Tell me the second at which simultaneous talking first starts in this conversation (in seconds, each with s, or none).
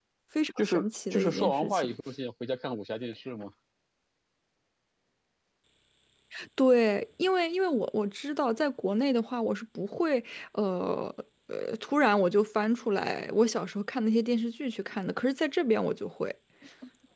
0.6 s